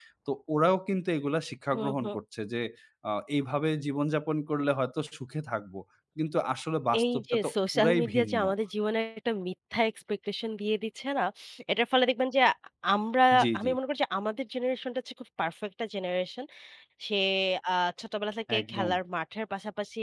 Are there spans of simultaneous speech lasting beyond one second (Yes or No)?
Yes